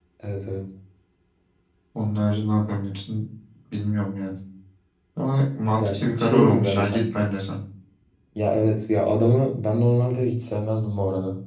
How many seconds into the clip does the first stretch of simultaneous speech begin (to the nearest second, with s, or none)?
6 s